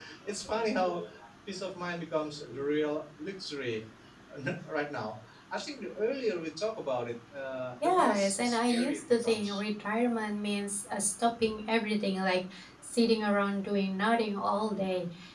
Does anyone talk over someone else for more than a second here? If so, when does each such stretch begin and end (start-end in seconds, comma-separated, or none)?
7.8-9.6